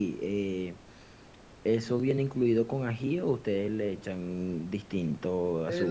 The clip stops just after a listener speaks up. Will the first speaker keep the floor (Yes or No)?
No